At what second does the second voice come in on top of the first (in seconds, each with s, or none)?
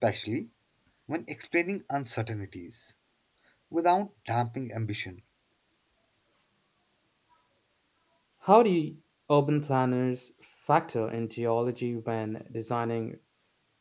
none